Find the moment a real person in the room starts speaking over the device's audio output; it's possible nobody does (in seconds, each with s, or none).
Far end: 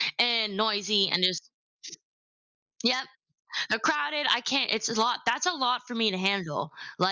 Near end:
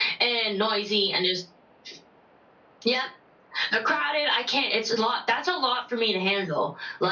none